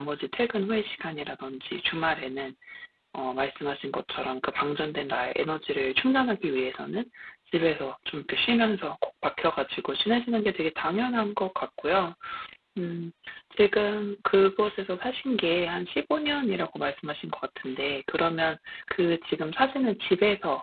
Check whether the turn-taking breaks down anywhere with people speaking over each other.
No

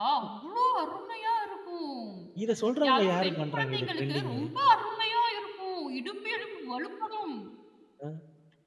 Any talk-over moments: Yes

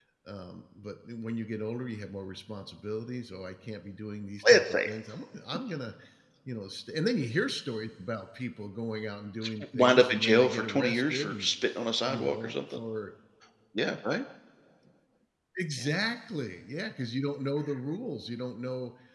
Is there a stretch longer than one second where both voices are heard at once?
Yes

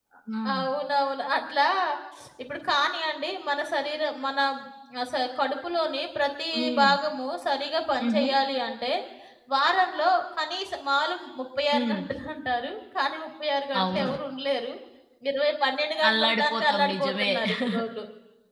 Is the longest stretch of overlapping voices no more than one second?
No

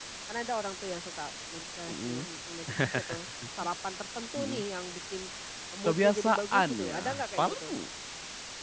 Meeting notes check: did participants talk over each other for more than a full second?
Yes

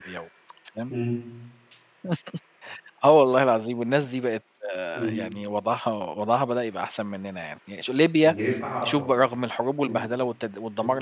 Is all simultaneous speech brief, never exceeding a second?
Yes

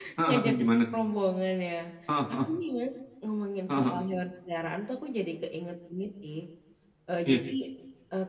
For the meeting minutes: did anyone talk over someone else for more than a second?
No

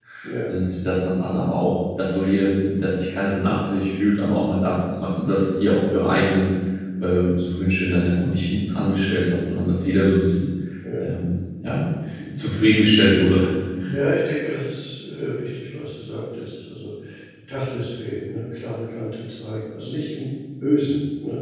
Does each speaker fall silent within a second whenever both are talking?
Yes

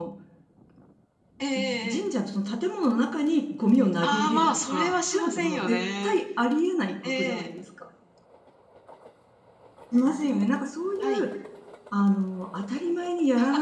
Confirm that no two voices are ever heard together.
No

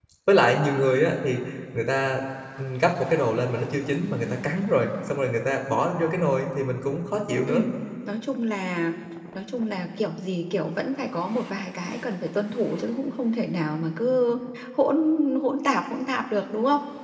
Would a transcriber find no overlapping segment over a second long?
Yes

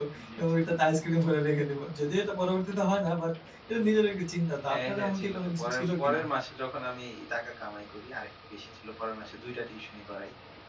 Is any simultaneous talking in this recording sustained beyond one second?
Yes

